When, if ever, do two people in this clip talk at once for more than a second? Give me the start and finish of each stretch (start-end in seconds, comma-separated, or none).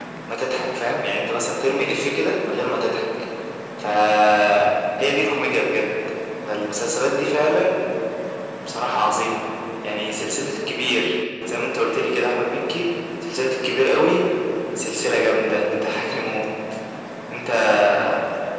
none